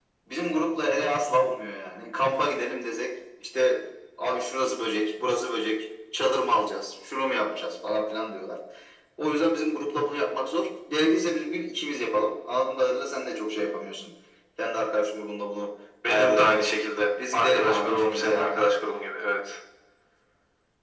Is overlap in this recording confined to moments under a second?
No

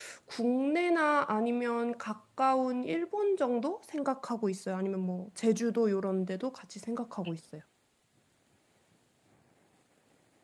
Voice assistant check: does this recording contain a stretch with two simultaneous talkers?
No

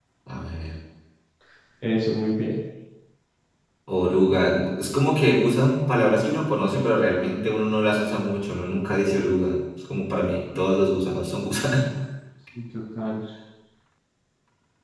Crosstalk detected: No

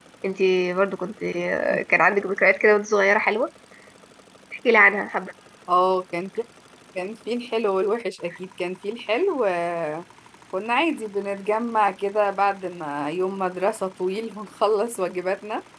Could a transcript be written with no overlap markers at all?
Yes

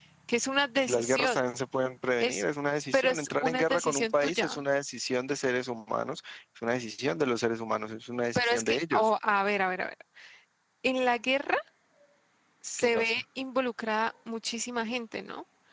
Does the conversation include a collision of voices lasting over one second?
Yes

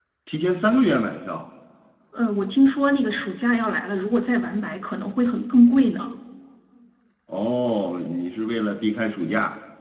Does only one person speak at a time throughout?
Yes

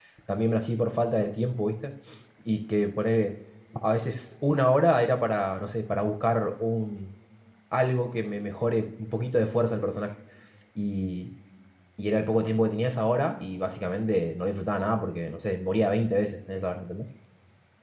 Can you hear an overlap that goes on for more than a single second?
No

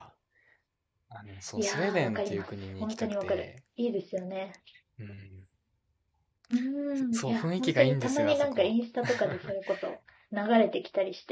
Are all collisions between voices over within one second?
No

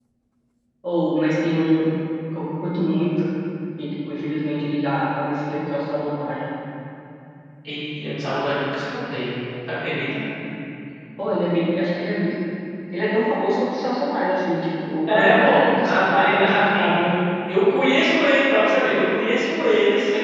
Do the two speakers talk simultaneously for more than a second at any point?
Yes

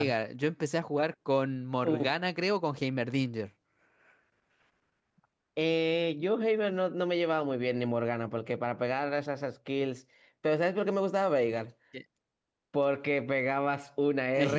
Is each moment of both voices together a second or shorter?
Yes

